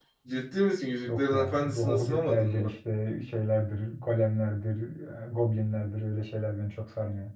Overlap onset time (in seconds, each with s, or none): 1.1 s